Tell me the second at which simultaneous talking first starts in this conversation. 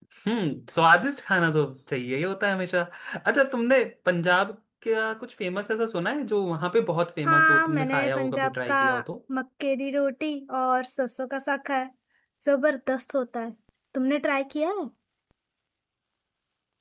7.2 s

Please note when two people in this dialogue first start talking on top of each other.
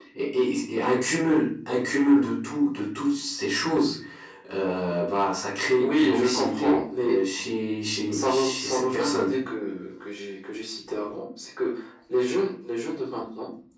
5.8 s

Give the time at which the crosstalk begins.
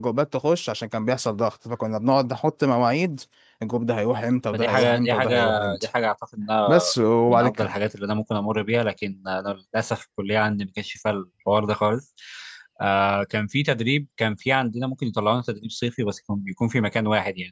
4.5 s

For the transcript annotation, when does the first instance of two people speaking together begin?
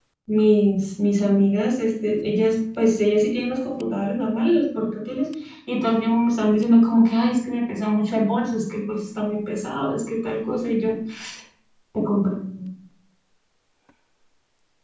none

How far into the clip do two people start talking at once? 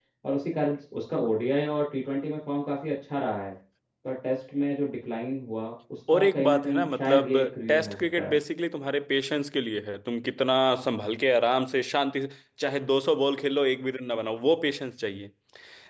6.1 s

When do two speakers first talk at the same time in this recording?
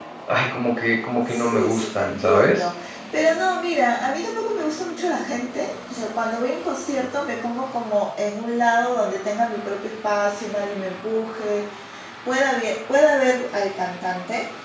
1.3 s

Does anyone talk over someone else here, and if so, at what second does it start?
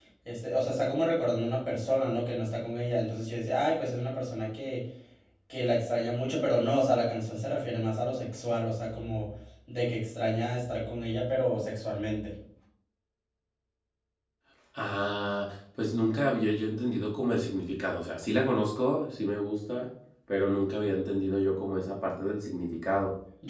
none

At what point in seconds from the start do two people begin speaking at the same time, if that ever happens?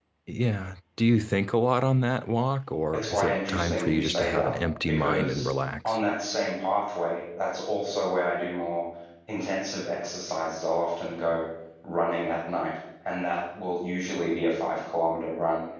2.9 s

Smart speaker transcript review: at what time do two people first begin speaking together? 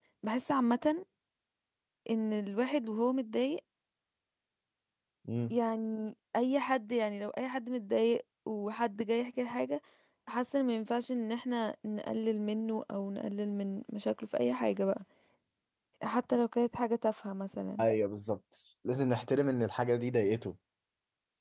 none

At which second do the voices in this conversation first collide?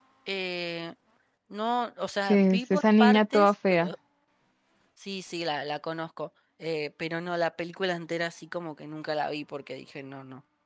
2.3 s

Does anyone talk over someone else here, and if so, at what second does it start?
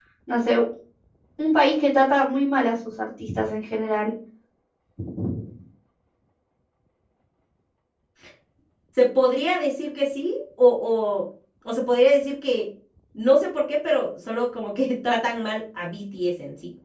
none

